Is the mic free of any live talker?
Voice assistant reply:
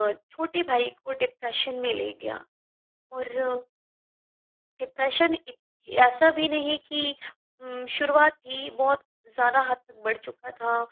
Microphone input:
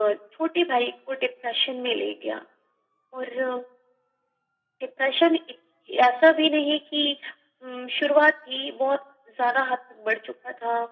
Yes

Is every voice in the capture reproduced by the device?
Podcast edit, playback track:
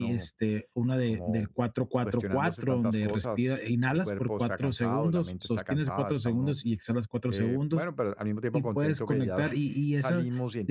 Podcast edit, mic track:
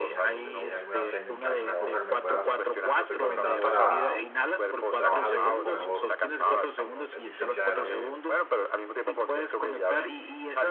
No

